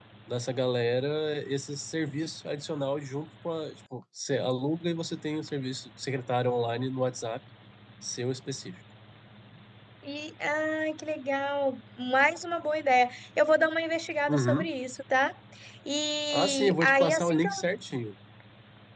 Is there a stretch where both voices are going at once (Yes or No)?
Yes